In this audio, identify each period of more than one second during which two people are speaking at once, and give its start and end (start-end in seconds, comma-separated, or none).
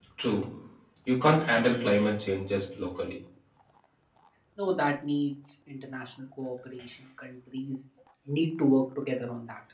none